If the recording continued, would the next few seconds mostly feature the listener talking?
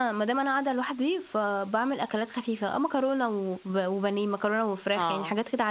No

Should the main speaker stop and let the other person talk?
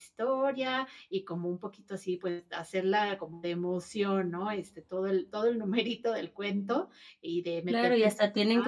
Yes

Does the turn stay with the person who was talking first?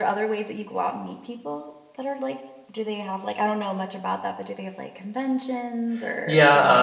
No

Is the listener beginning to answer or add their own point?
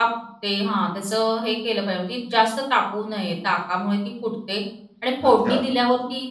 No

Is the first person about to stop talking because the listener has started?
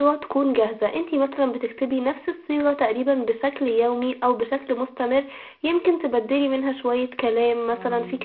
No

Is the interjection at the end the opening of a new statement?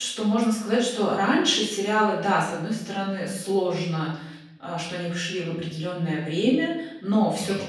No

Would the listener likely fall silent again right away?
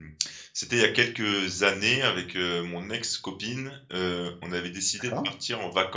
Yes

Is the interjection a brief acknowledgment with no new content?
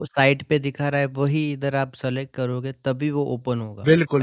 No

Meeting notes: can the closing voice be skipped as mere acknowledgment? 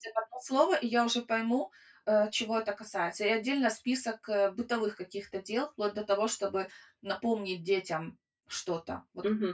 No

